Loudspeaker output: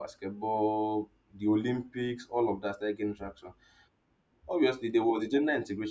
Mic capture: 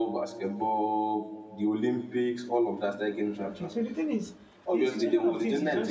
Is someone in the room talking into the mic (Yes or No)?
Yes